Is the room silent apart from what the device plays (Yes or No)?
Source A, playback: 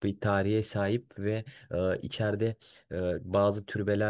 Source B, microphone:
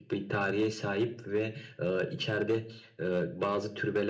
Yes